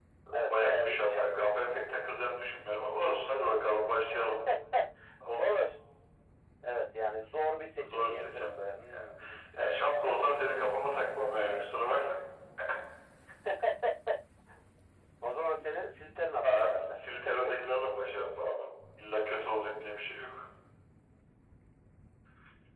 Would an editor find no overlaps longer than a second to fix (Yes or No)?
No